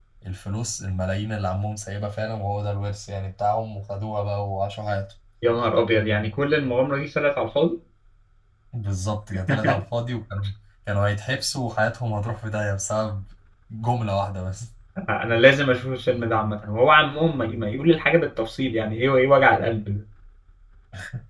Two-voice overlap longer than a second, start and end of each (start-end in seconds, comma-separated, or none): none